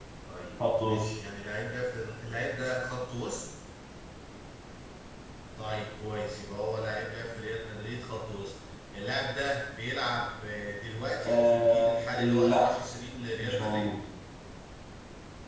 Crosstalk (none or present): present